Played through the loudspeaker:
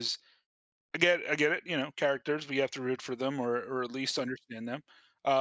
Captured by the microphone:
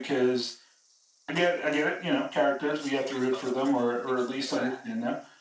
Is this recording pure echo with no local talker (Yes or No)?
No